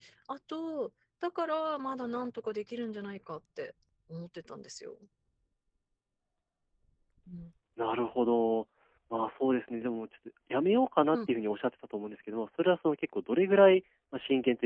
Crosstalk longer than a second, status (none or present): none